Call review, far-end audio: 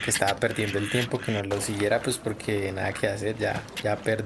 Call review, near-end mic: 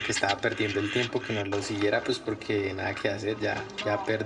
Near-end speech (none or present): present